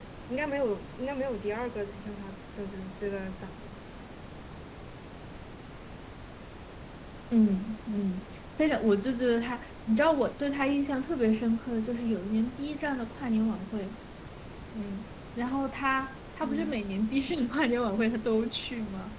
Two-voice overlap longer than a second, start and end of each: none

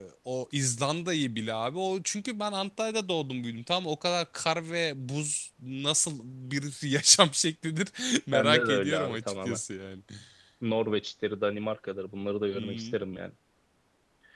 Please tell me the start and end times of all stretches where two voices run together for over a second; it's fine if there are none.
8.3-9.6

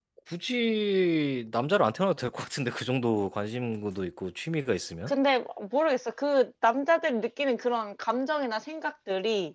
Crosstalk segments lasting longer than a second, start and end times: none

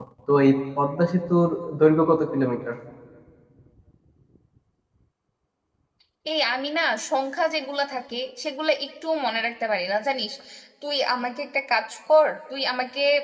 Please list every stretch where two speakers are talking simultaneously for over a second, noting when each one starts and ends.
none

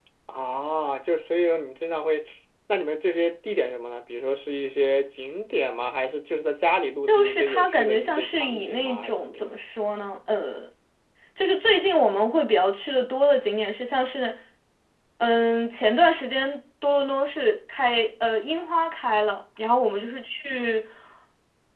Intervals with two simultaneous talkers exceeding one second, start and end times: 7.1-9.6

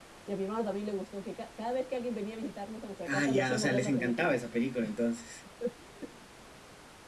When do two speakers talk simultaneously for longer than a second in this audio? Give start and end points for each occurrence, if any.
3.0-4.3

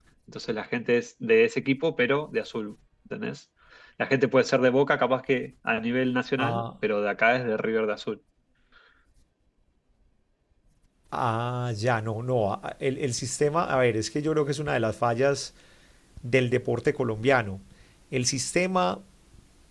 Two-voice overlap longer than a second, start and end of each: none

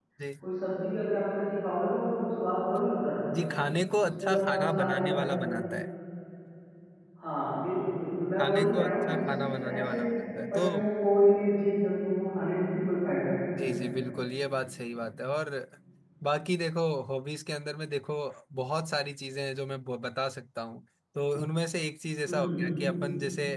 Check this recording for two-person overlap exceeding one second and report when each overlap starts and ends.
4.2-5.4, 8.4-10.0

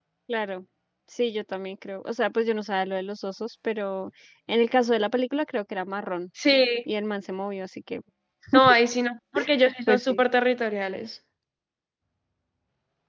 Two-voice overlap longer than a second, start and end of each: none

